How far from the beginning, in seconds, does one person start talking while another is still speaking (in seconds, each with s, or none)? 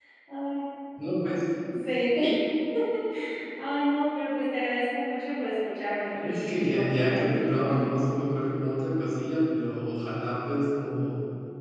6.1 s